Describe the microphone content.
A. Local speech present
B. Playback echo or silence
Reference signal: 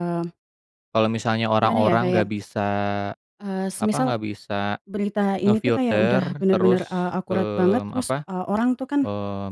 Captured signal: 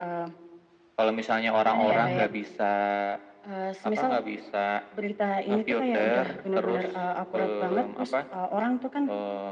A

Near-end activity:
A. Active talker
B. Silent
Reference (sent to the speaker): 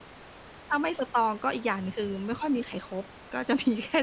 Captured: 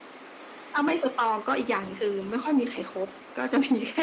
B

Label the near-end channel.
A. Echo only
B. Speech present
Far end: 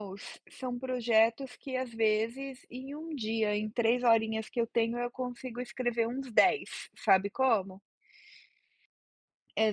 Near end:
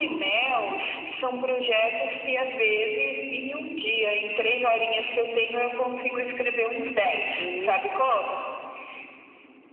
B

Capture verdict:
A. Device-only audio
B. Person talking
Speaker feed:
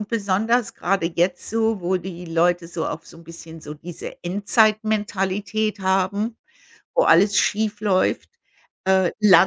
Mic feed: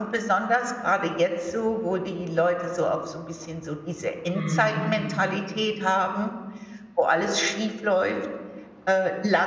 B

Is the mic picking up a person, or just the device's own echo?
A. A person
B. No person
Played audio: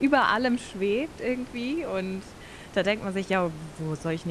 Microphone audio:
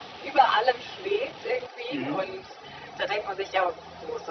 A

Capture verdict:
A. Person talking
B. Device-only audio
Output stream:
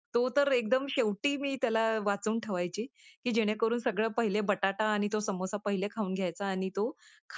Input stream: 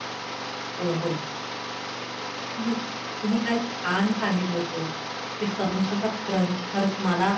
A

